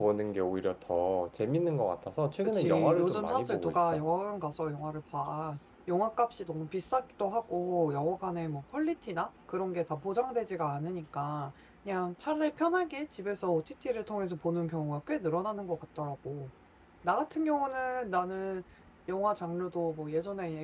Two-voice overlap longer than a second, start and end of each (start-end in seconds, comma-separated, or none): 2.4-4.0